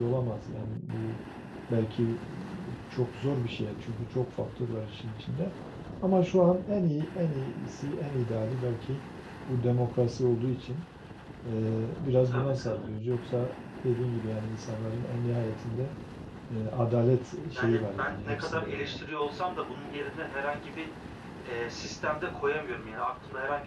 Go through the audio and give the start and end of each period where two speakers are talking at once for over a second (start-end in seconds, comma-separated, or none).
17.6-18.8